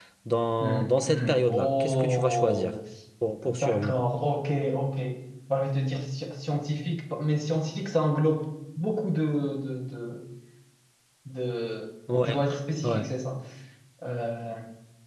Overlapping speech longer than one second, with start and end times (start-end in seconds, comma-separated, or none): 0.6-2.7